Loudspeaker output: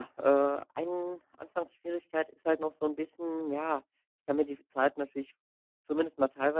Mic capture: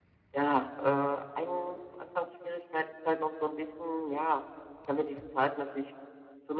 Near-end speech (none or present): none